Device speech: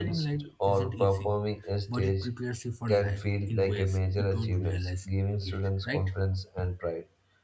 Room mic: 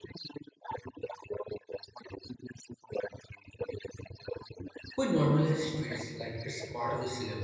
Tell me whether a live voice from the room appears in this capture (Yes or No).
Yes